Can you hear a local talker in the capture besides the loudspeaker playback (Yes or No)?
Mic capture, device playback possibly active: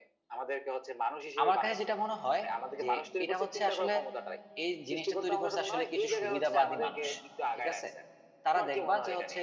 Yes